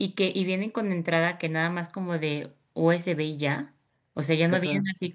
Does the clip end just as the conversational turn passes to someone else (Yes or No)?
No